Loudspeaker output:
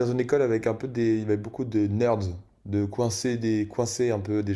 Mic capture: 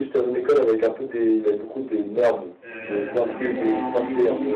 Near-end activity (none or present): present